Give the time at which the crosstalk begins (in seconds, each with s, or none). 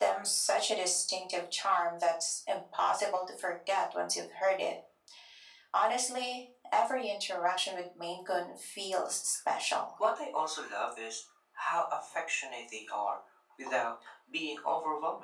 none